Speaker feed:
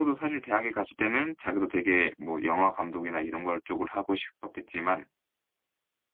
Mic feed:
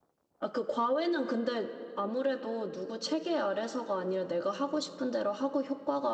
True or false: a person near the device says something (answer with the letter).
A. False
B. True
B